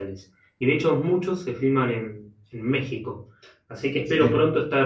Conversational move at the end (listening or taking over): listening